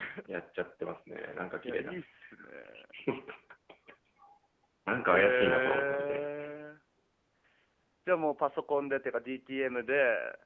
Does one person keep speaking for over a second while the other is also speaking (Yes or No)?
Yes